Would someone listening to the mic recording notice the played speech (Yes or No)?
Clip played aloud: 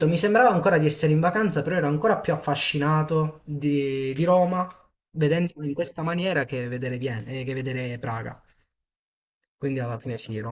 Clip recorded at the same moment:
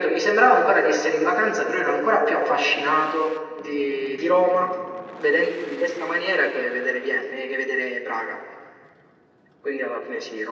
Yes